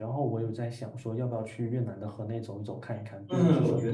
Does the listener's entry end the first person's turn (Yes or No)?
Yes